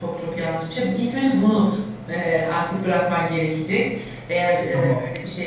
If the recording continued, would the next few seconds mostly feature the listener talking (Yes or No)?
No